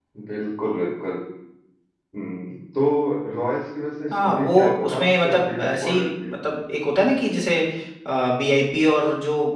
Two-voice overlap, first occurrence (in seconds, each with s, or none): 4.1 s